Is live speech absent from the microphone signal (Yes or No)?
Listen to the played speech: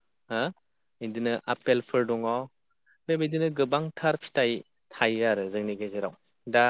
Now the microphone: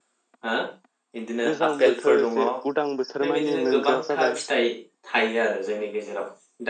No